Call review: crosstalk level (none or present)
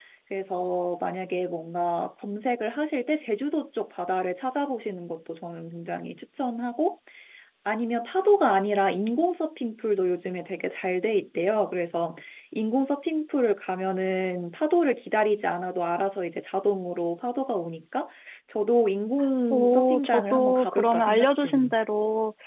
present